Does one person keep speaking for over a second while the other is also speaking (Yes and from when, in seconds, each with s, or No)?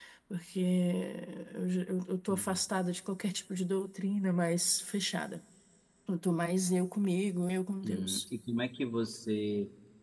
No